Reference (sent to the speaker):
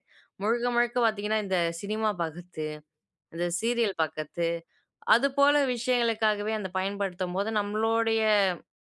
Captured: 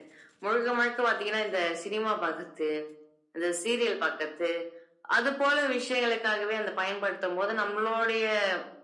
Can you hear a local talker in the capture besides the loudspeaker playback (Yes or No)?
No